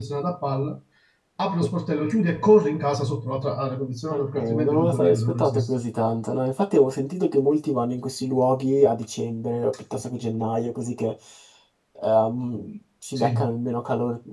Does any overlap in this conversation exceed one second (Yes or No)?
Yes